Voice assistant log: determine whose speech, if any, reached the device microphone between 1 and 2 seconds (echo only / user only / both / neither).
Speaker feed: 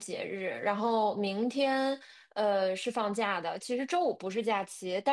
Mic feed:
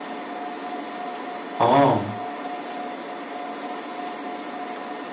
user only